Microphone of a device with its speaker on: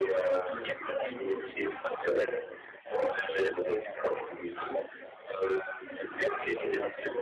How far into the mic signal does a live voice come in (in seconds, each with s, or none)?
0.5 s